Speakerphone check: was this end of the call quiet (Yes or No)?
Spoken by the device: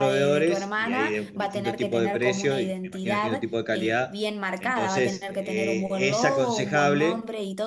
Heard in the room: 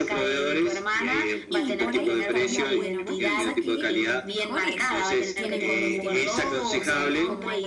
No